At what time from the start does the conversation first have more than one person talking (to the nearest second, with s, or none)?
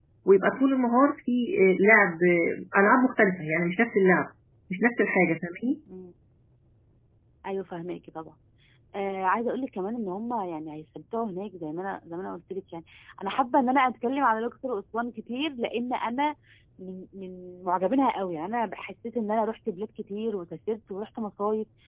none